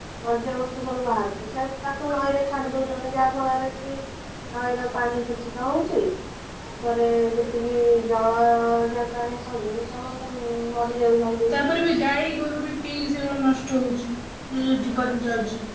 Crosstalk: none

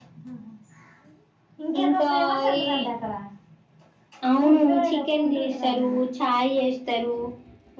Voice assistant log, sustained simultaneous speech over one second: present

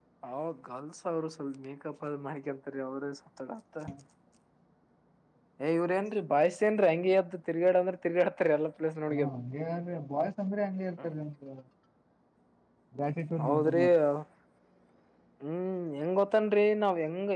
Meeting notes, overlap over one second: none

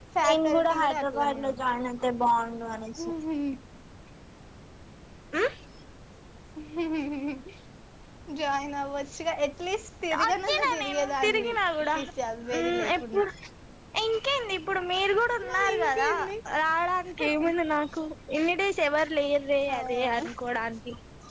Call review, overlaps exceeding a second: present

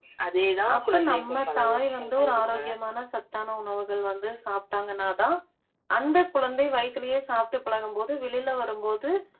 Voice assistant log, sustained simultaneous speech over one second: present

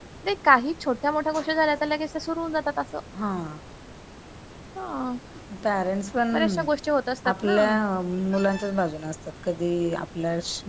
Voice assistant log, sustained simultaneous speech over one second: none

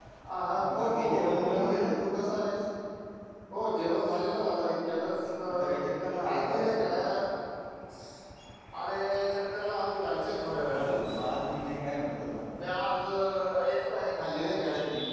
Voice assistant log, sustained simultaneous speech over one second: present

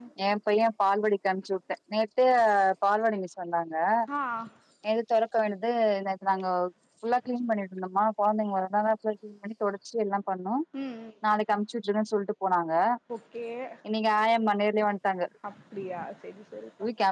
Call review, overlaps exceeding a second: none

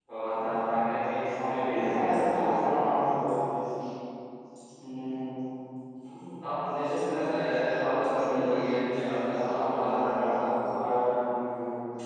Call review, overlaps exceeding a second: present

